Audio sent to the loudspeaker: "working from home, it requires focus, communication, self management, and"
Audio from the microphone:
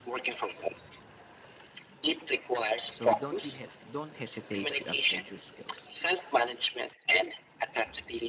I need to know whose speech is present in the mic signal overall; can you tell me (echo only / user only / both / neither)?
both